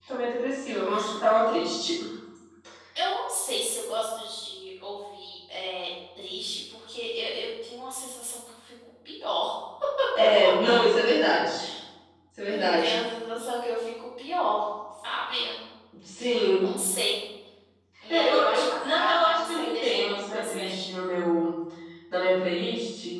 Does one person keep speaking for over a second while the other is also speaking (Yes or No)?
Yes